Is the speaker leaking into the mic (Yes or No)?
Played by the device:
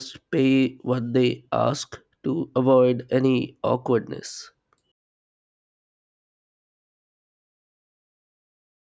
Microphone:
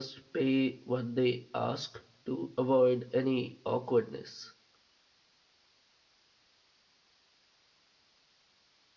Yes